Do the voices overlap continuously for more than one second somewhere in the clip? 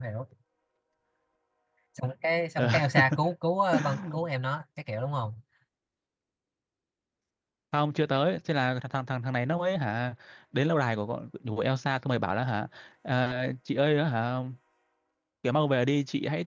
No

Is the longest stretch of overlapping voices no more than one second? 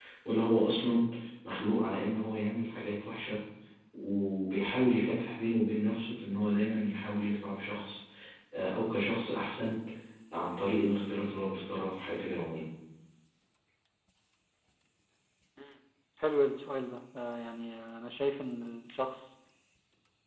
Yes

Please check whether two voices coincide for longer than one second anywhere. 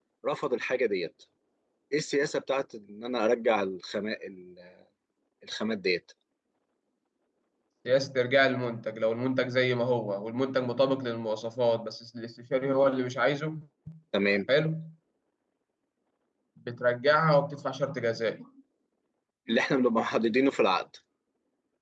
No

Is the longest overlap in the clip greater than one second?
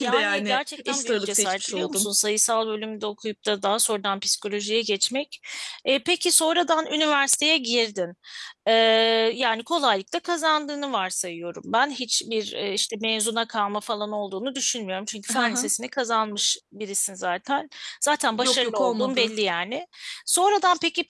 Yes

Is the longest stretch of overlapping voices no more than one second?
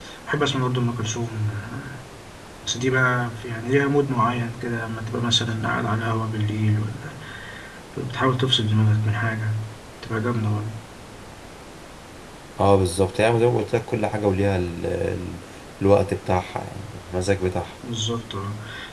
Yes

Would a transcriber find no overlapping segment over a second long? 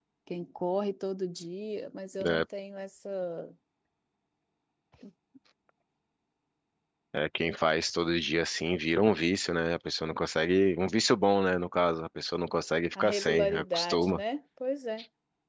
No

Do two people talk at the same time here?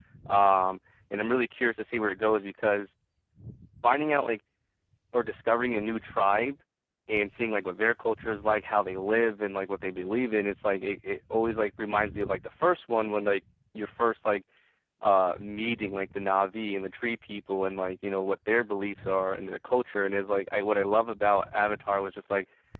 No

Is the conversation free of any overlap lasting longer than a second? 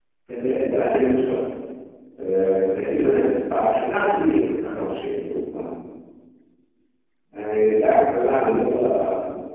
No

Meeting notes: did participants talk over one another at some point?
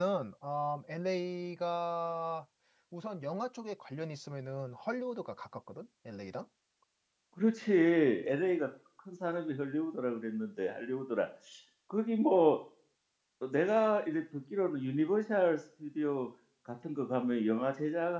No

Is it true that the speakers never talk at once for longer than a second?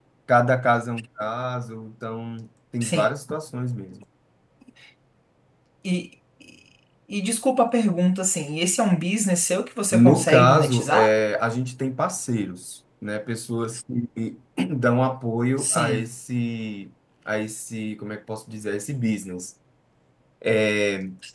No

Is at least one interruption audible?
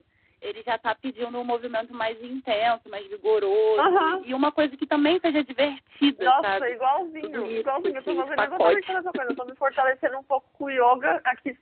Yes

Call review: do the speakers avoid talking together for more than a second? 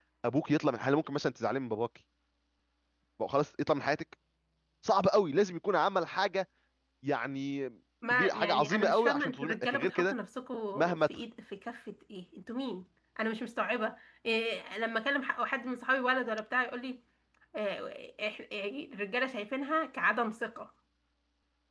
No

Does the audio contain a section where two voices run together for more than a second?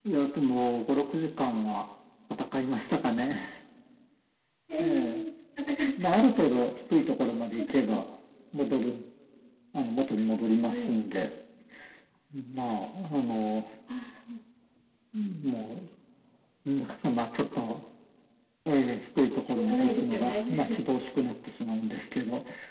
Yes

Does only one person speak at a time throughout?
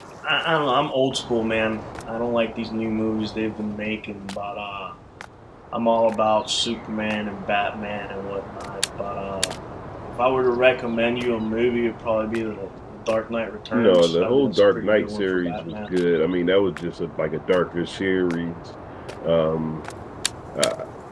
No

